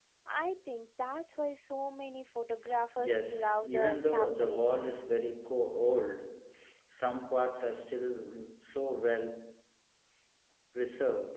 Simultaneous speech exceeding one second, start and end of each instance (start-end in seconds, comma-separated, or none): 3.0-4.8